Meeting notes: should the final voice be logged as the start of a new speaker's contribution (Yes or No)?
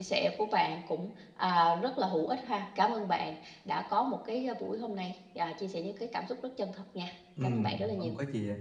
Yes